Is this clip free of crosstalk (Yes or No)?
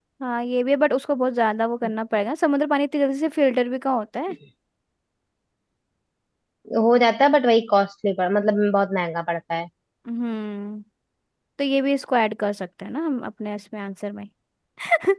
Yes